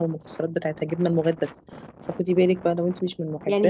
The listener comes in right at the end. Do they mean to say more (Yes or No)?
Yes